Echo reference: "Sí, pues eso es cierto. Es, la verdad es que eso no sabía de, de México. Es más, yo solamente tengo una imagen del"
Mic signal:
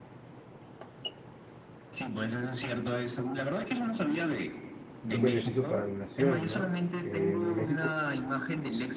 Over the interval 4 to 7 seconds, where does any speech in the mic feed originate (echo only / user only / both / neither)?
both